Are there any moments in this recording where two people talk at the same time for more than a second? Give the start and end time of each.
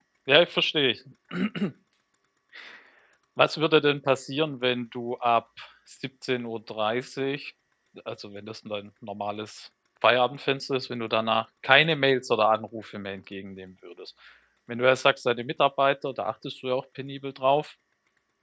none

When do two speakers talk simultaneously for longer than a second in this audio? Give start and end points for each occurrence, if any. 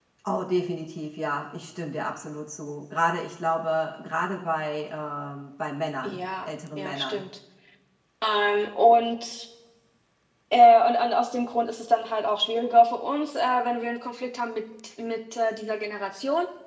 6.0-7.2

